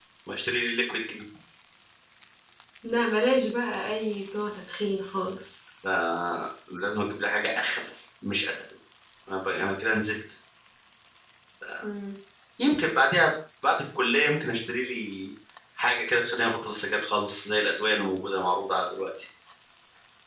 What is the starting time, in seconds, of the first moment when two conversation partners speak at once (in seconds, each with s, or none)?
none